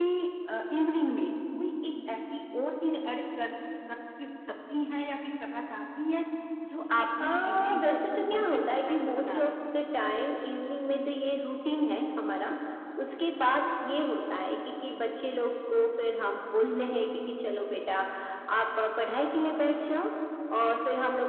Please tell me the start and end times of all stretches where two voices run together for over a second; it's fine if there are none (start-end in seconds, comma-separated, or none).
7.2-9.5